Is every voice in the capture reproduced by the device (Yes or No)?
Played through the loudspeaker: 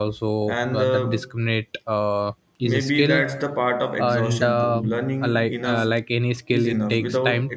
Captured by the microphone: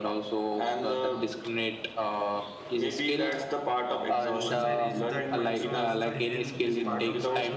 No